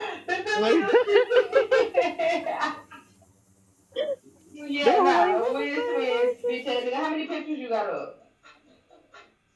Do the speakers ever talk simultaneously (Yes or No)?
Yes